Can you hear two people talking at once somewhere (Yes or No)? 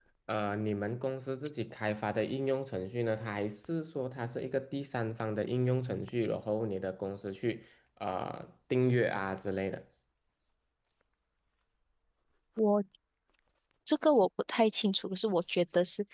No